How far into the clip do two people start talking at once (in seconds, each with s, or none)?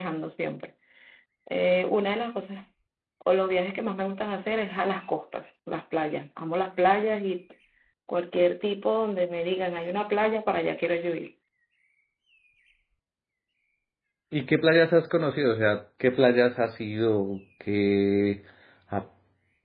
none